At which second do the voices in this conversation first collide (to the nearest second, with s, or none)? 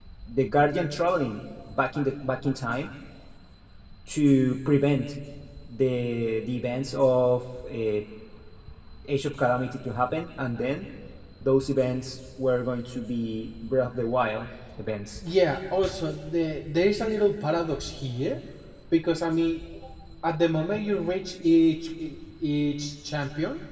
none